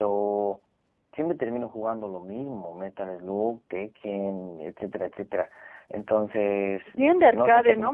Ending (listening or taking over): taking over